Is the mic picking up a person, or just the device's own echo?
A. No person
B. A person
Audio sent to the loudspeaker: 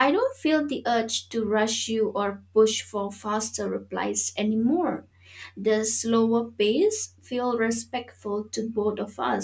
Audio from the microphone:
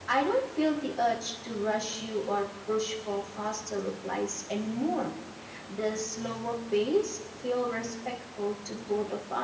A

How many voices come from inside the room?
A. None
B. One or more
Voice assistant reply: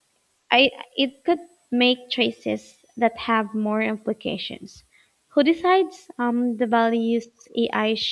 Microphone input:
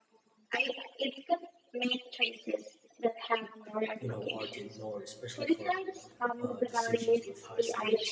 B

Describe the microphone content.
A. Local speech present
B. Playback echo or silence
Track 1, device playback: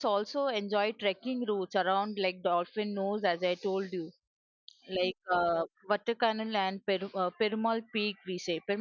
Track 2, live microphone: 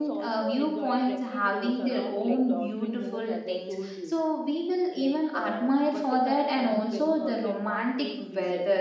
A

